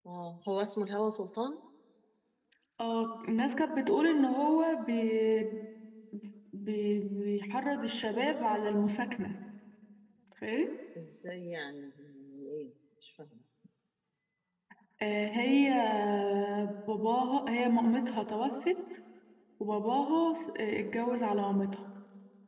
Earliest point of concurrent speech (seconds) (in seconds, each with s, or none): none